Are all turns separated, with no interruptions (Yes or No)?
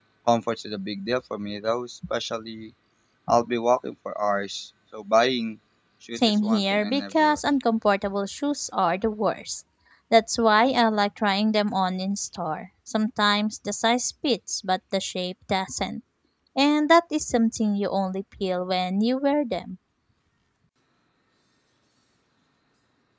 No